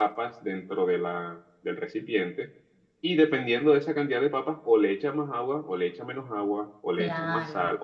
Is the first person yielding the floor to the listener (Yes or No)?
No